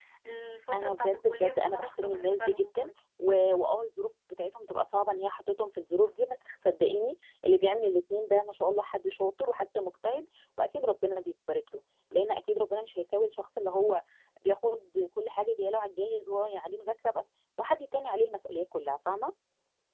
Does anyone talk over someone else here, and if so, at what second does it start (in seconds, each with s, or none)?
0.7 s